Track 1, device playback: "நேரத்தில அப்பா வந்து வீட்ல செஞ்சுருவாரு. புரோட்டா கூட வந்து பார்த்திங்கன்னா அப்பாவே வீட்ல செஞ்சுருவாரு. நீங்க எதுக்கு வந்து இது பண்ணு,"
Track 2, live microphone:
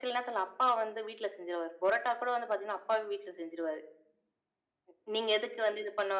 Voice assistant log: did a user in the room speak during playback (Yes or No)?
No